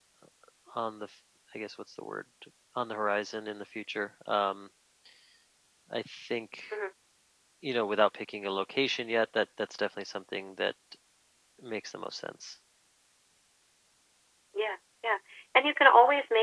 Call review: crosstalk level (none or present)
none